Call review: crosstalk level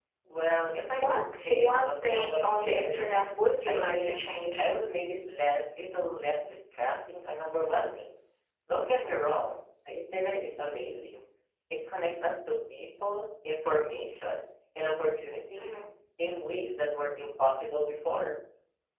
present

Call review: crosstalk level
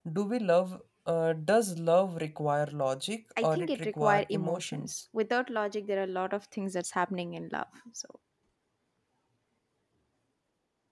present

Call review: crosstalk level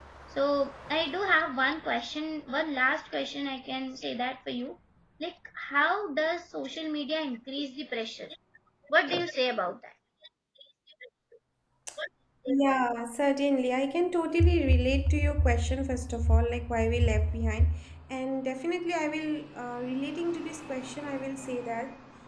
none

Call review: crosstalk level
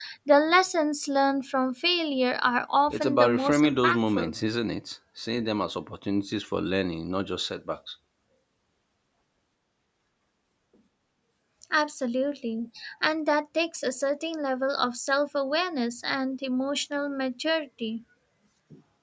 present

